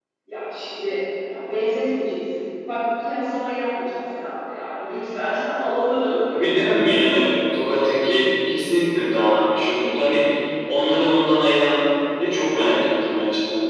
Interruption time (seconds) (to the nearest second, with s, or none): none